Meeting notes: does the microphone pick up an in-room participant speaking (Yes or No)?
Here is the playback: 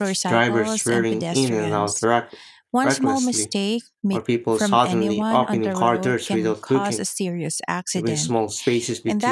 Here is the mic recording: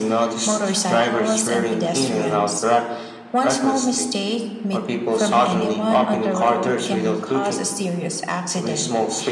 No